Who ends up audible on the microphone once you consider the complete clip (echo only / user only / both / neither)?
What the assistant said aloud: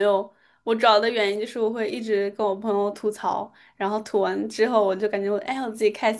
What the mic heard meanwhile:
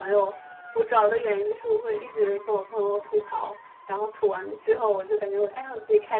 echo only